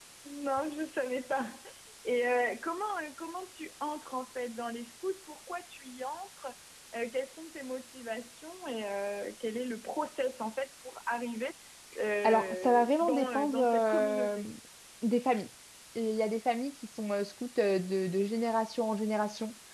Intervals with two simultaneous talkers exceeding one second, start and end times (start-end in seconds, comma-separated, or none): 12.2-14.4